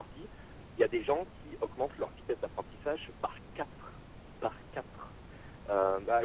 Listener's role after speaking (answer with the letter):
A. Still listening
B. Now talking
B